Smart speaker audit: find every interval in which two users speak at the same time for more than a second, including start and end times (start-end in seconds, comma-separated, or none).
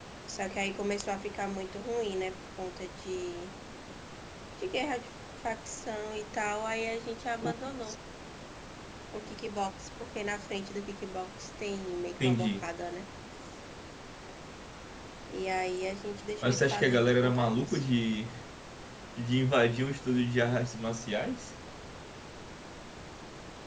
16.4-17.8